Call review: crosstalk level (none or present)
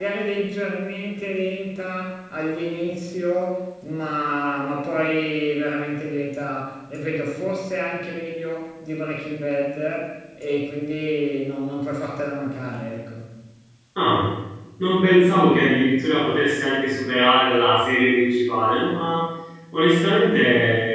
none